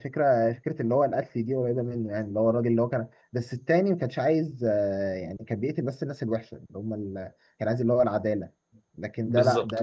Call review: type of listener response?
listening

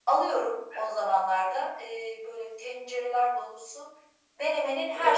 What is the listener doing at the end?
listening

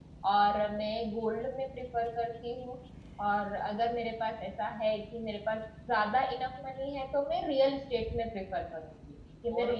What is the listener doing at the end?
taking over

